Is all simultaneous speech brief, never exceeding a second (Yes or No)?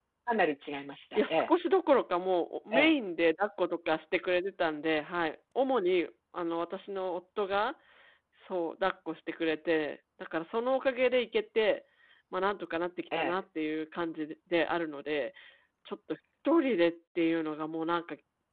Yes